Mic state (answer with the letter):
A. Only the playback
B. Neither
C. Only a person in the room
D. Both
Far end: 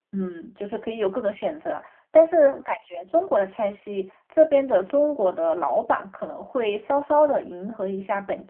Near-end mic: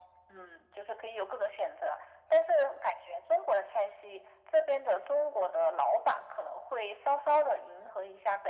A